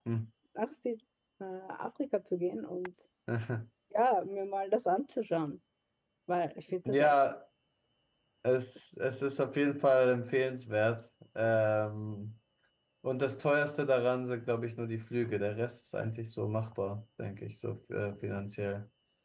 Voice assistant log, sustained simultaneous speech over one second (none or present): none